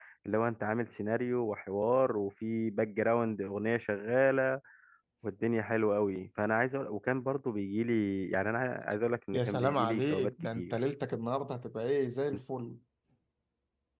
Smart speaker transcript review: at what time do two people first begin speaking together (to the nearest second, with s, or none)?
9 s